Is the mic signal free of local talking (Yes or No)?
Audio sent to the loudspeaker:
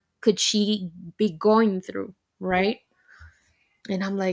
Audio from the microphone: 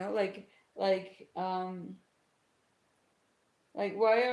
No